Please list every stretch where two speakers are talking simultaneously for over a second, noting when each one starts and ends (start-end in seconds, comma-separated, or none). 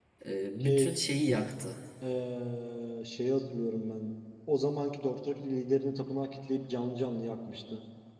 none